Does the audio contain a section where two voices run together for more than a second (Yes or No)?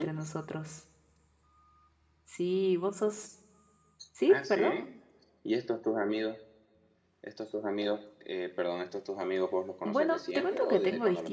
Yes